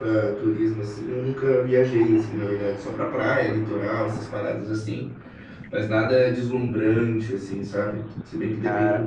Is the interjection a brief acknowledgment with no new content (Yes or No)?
No